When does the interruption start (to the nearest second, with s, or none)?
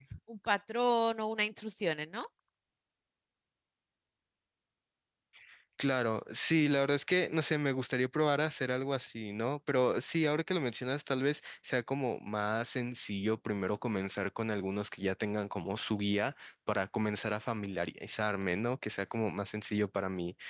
none